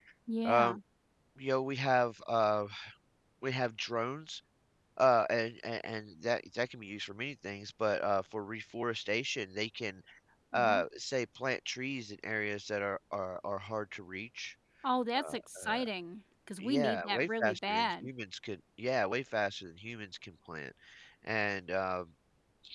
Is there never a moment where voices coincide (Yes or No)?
No